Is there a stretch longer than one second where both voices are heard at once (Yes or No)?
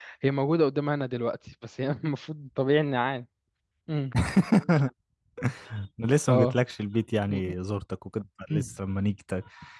No